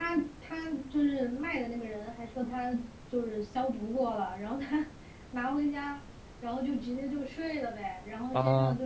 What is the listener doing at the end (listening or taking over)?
listening